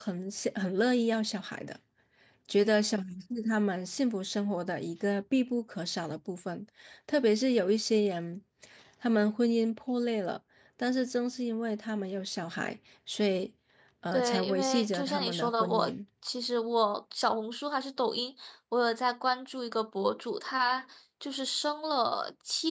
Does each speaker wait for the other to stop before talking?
No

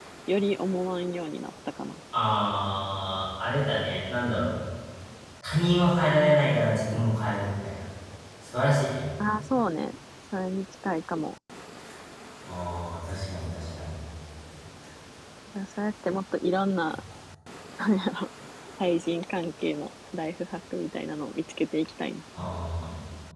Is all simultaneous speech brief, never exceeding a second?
Yes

